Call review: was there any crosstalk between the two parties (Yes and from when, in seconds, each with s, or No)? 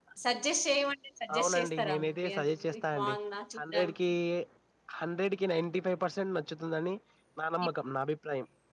Yes, from 1.4 s